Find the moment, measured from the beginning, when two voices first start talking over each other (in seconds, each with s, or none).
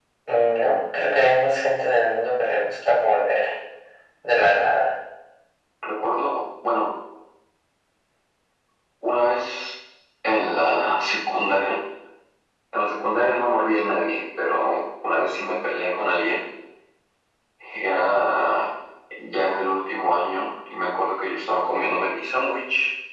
none